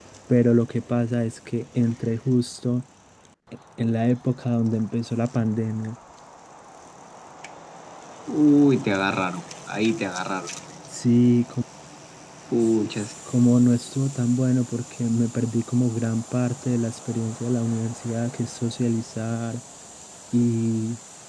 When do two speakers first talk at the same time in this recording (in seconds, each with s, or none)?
none